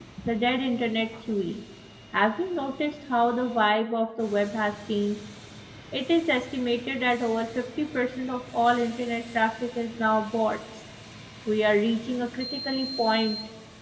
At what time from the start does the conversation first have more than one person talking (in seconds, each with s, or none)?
none